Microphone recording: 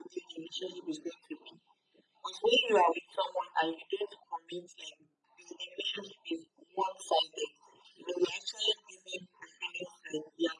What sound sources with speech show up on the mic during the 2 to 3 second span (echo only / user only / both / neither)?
echo only